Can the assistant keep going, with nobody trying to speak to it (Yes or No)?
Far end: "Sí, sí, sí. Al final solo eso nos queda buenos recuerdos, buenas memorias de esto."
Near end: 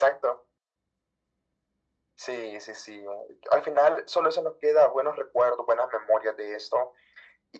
Yes